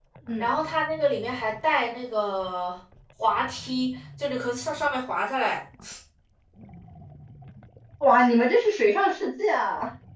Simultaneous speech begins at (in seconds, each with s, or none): none